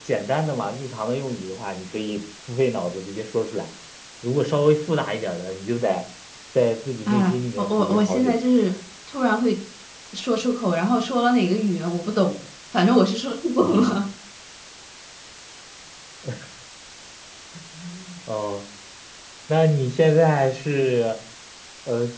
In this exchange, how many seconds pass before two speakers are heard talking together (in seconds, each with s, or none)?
7.1 s